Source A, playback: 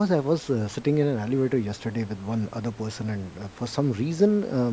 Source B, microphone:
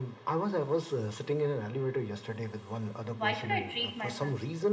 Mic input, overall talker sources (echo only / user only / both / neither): both